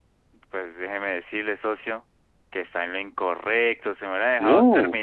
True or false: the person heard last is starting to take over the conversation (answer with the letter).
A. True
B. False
B